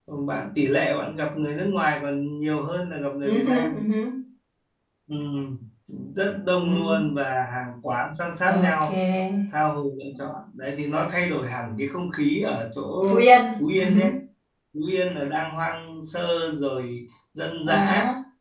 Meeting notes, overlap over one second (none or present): none